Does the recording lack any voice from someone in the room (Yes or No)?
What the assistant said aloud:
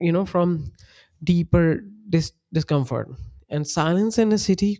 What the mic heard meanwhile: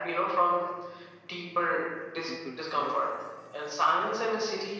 No